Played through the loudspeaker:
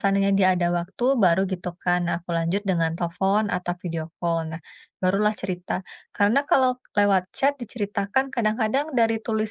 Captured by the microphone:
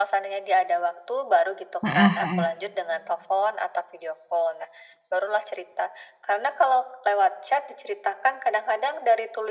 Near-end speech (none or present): present